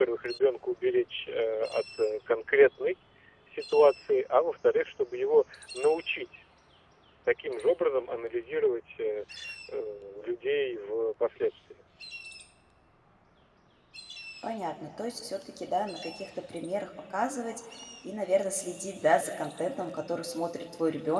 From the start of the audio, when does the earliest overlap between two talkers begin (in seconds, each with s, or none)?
none